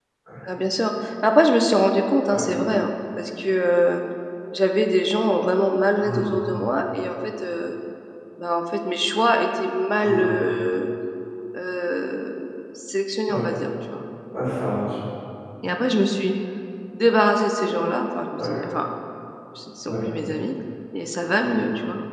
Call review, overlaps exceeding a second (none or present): none